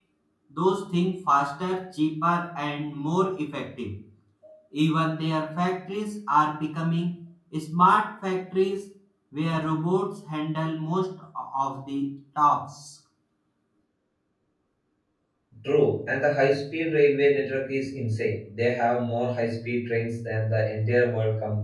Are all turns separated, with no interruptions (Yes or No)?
Yes